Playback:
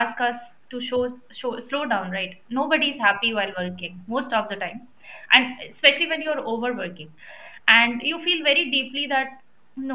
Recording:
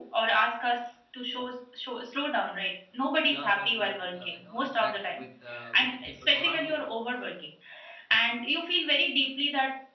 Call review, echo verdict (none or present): present